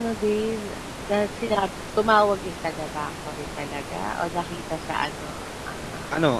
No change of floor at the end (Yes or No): No